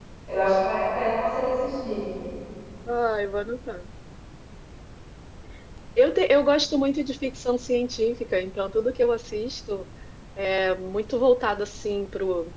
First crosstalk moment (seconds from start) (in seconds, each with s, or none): none